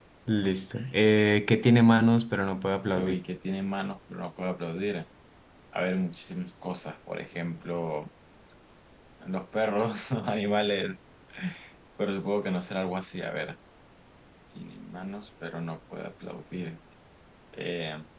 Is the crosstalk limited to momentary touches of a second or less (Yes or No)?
Yes